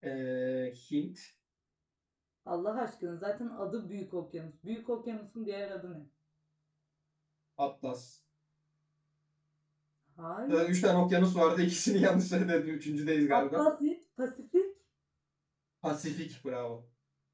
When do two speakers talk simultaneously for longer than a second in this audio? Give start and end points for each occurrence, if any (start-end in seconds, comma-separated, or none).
none